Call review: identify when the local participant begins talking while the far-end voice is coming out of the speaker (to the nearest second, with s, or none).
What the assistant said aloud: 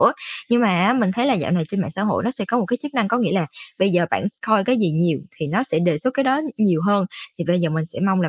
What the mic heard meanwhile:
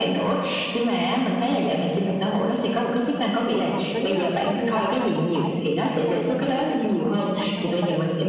3 s